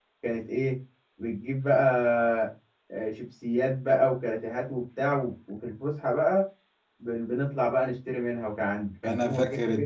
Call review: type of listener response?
taking over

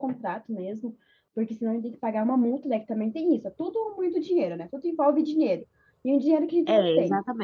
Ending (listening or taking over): taking over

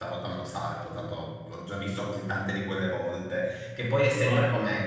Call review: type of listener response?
listening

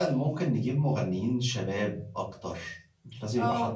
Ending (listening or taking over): listening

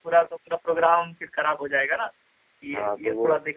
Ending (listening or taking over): taking over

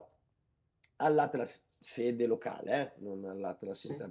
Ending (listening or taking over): listening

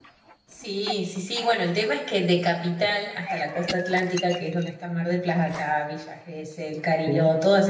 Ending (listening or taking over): listening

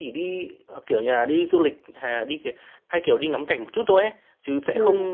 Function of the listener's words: listening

